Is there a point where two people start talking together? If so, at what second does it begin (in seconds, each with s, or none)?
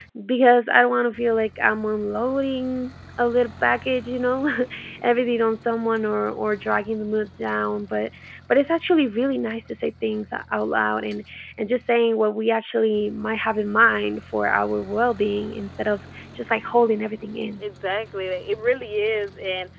none